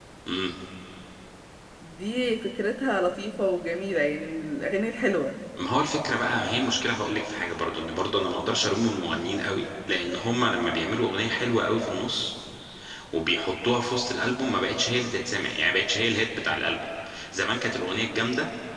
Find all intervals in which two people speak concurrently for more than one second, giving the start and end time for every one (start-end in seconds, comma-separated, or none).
none